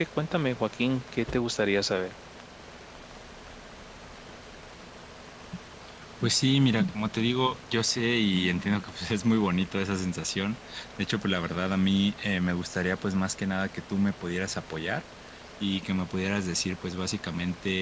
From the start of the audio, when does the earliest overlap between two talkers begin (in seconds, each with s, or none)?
none